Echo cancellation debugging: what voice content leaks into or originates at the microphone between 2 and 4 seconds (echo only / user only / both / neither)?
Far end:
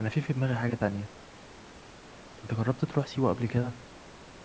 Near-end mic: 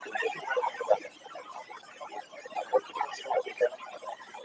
echo only